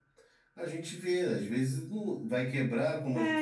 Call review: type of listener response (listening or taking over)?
taking over